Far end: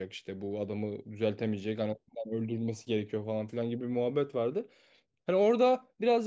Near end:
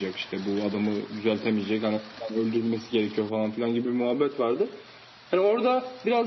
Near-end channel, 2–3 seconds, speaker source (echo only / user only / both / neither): echo only